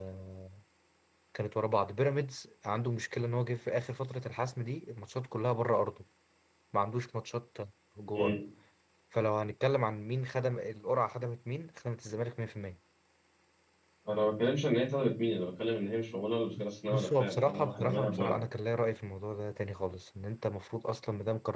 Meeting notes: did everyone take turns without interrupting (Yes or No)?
No